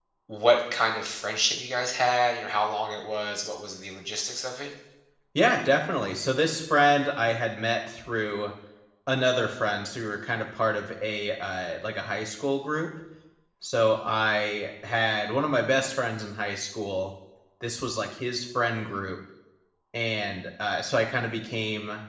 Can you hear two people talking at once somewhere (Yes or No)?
No